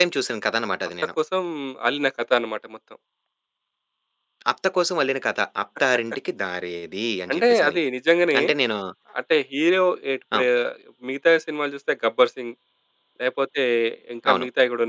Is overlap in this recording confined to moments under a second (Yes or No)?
Yes